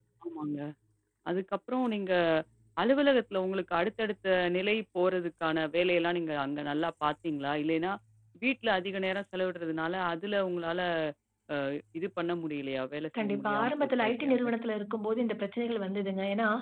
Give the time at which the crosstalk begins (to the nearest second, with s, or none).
13 s